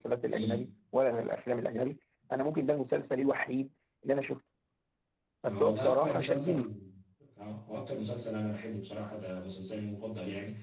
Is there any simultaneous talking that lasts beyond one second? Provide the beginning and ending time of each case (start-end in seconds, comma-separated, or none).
5.4-6.7